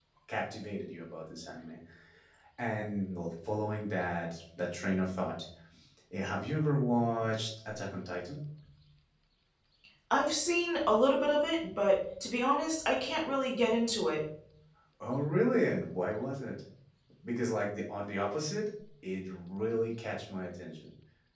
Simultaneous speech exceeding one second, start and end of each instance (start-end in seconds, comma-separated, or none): none